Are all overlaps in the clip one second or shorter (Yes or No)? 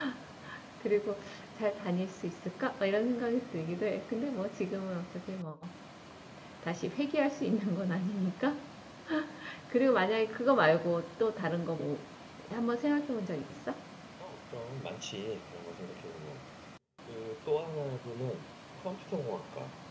Yes